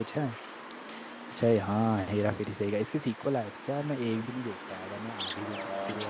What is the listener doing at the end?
taking over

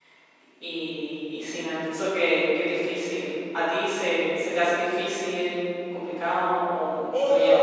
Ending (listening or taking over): taking over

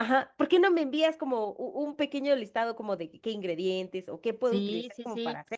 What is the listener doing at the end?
taking over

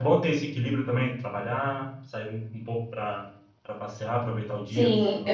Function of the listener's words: taking over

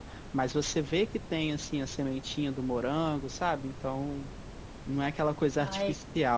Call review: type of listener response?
listening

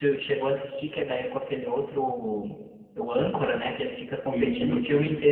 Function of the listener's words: listening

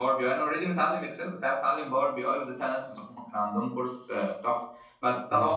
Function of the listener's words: listening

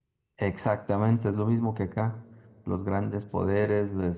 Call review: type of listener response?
listening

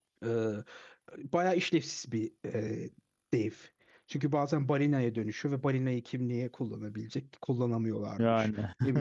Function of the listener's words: listening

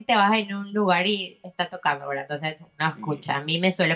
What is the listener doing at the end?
listening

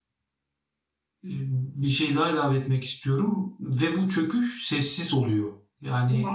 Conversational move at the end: listening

